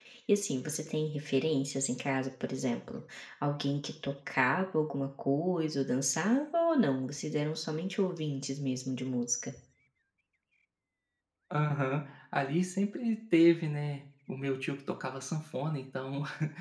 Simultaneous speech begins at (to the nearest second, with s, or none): none